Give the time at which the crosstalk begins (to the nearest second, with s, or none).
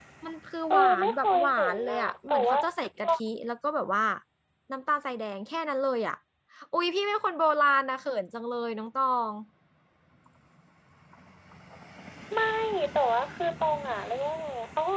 1 s